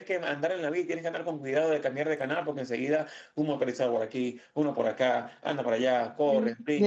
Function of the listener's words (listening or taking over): taking over